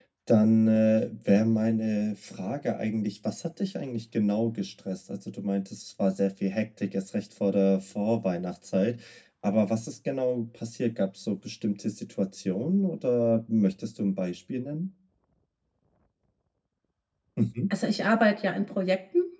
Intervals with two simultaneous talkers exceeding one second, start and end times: none

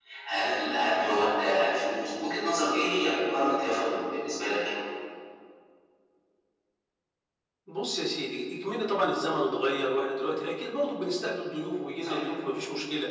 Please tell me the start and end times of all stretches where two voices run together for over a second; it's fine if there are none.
none

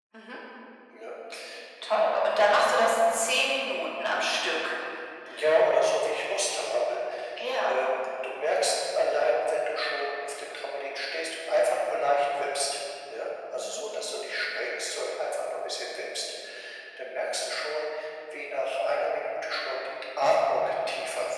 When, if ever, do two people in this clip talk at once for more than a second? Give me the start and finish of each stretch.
none

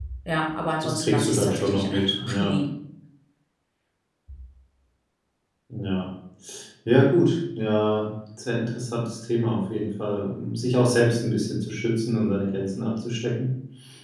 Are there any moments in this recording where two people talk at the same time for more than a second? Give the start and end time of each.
0.8-2.5

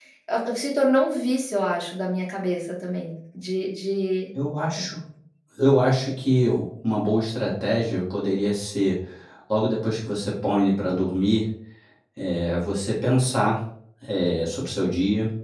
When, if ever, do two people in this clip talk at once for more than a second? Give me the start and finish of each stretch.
none

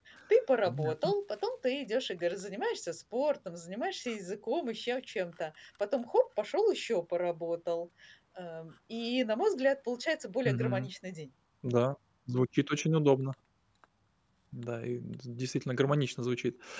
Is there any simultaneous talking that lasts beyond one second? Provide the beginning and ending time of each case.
none

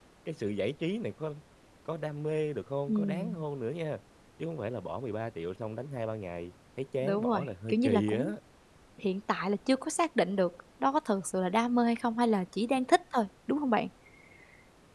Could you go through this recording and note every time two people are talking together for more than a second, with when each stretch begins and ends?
7.0-8.2

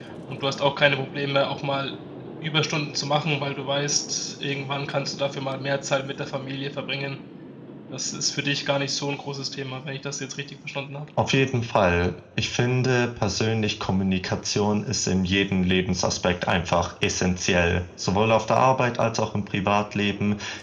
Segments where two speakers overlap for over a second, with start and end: none

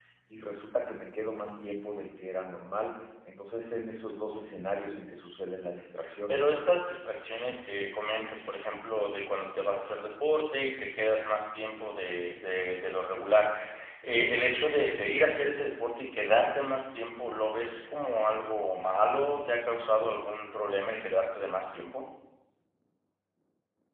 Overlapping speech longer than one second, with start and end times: none

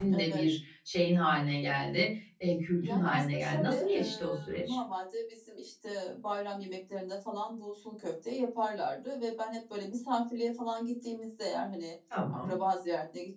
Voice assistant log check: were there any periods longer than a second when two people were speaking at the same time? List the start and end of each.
2.8-4.8

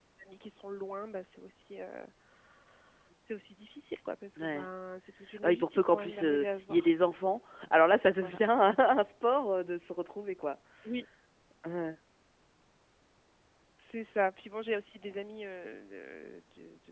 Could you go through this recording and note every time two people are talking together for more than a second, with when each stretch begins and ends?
5.4-6.9

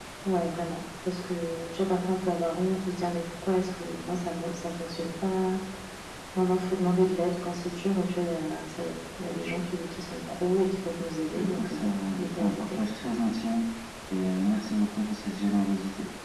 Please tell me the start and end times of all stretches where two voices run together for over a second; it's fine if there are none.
11.3-12.8

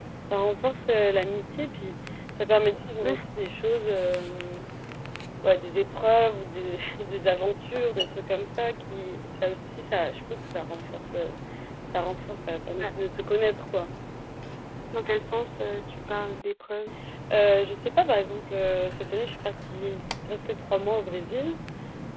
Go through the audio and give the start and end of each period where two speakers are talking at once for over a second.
none

